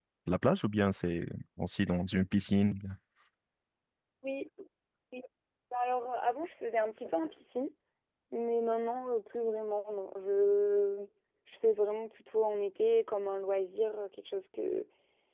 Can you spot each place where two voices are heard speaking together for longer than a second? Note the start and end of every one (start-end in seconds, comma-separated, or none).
none